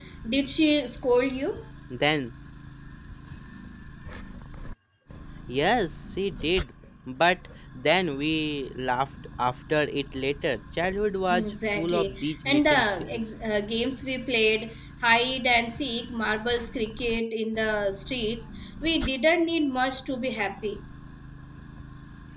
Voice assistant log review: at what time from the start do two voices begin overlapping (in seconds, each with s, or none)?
11.3 s